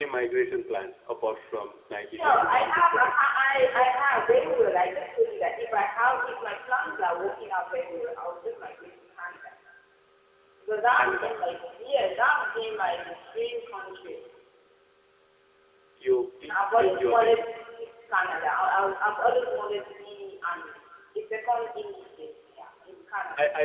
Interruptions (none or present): present